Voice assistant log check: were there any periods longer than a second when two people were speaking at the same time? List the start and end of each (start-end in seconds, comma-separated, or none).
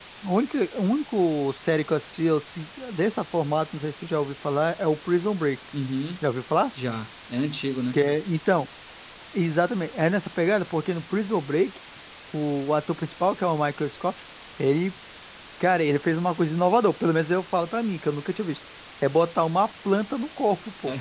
none